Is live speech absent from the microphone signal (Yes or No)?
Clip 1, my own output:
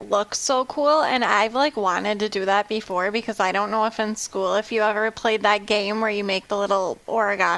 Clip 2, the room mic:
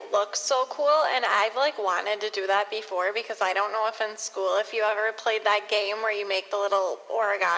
Yes